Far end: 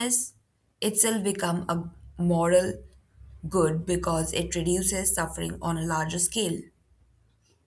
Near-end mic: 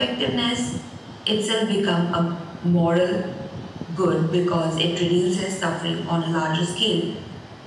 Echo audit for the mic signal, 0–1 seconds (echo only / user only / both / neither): echo only